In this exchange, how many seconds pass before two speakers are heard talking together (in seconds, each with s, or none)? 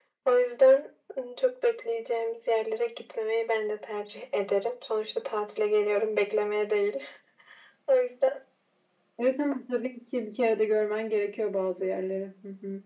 none